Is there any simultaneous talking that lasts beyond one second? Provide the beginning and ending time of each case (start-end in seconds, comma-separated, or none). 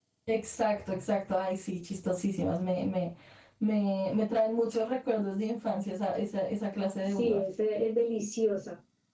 none